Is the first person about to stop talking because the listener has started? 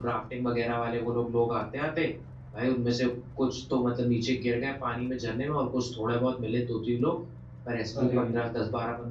No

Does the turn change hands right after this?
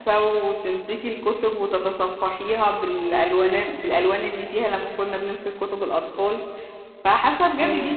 No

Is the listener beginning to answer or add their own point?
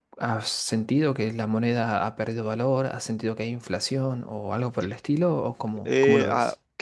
Yes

